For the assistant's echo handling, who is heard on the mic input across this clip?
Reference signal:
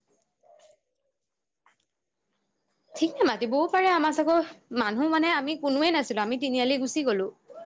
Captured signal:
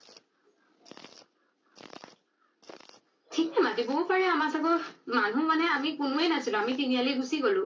echo only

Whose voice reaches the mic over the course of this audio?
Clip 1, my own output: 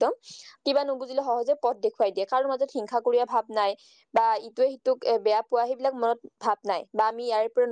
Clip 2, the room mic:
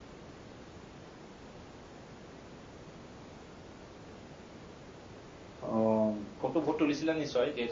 user only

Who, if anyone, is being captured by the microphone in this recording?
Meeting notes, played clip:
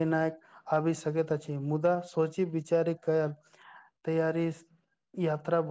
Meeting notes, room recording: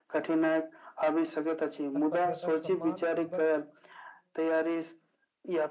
both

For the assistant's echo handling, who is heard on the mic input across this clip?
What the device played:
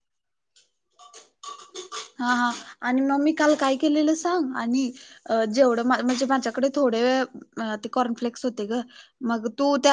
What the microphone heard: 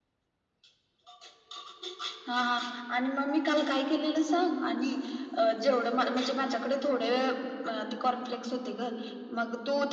echo only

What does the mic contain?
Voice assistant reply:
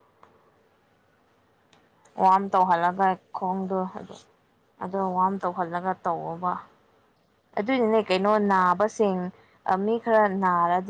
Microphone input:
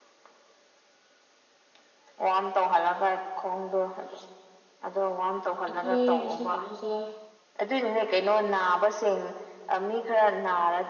both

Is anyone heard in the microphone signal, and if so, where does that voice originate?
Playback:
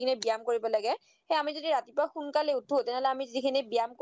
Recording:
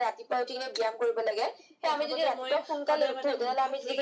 both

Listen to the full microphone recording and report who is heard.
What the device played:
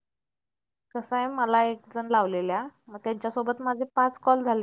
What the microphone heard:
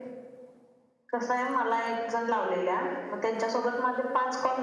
echo only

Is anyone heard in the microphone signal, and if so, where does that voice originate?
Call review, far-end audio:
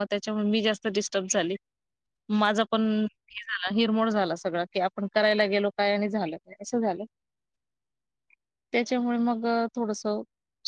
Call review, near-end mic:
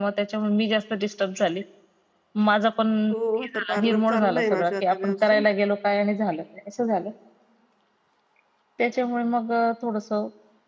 both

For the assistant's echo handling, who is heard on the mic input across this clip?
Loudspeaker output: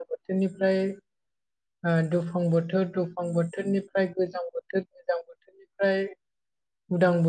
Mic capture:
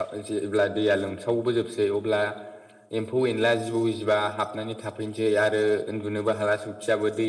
user only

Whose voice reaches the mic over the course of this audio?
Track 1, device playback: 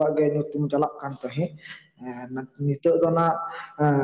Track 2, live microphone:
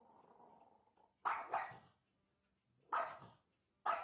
neither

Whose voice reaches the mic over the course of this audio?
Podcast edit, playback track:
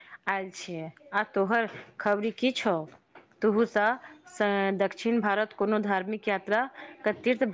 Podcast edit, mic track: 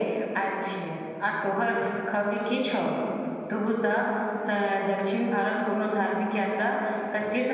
echo only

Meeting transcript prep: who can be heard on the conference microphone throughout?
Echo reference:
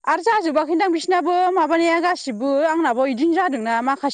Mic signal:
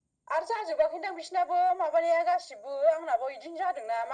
echo only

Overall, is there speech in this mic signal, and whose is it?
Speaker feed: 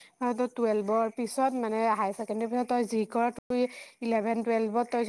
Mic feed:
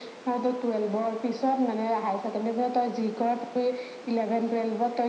echo only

